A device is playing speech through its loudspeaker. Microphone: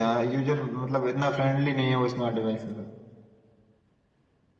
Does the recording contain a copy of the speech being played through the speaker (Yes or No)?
Yes